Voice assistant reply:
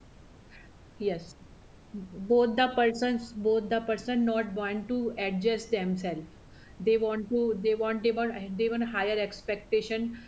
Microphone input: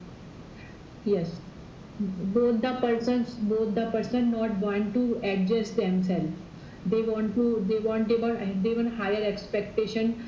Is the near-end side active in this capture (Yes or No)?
No